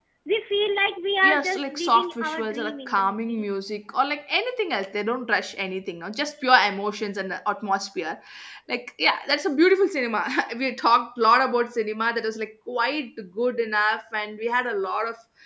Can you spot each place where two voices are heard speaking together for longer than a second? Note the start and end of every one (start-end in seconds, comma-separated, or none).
1.2-3.5